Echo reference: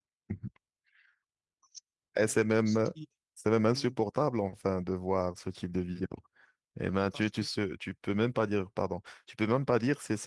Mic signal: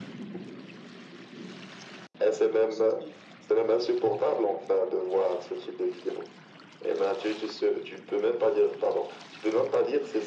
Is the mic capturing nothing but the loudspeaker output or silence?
Yes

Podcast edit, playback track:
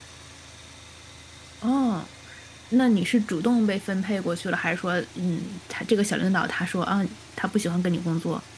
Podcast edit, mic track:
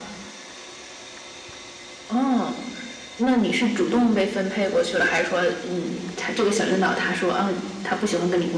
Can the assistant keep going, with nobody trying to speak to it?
Yes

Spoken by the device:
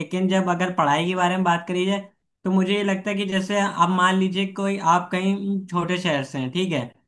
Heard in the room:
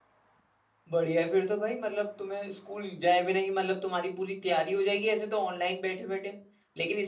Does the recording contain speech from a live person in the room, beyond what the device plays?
Yes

